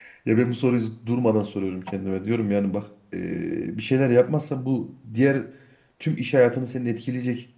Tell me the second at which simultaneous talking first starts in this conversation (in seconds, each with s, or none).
none